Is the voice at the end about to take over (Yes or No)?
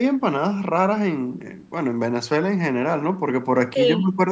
No